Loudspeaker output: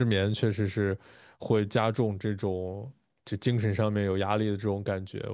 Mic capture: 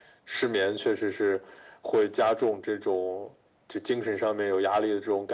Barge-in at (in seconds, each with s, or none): none